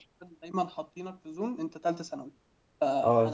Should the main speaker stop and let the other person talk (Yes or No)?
Yes